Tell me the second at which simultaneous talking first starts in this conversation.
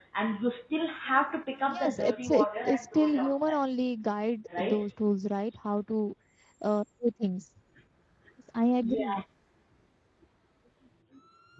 1.7 s

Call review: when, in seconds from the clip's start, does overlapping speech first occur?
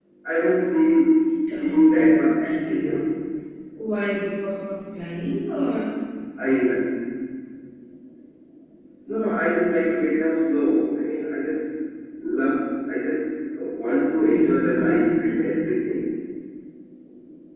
1.6 s

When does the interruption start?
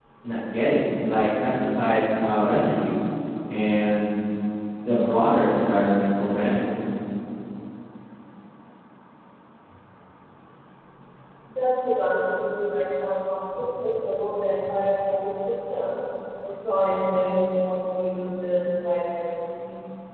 none

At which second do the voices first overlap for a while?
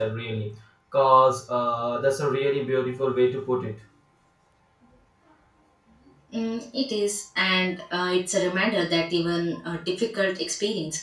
none

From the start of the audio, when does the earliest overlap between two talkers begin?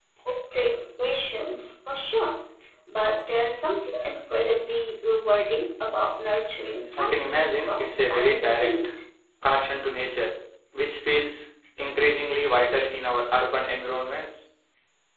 6.9 s

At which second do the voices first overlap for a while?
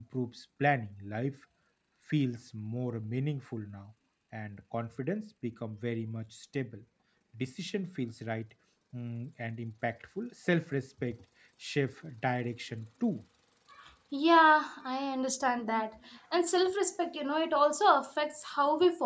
none

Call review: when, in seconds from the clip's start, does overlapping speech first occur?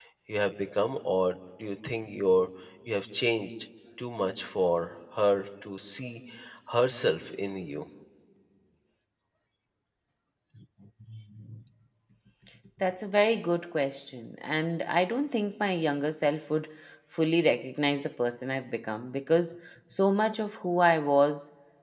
none

